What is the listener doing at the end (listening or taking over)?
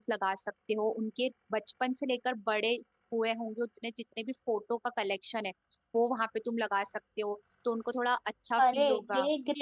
taking over